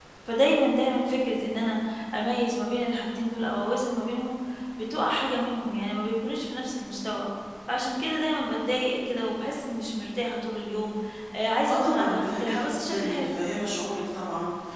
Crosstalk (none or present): present